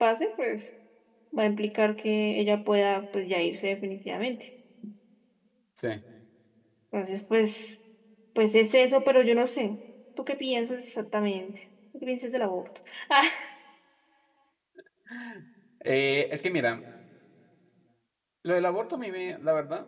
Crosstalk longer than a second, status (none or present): none